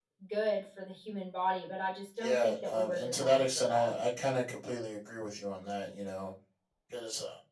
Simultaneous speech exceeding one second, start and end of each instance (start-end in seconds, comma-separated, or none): 2.2-3.9